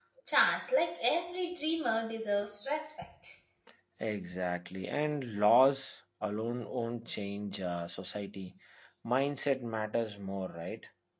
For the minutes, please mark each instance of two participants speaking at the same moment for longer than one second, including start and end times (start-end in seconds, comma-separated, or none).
none